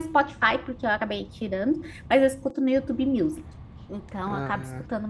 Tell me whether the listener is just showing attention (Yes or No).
Yes